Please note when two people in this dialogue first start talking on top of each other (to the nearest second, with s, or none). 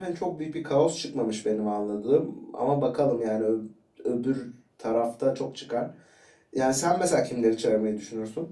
none